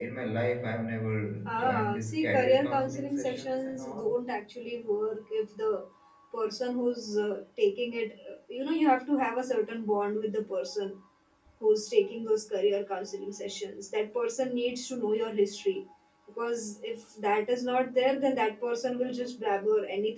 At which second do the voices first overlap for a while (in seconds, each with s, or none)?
1.5 s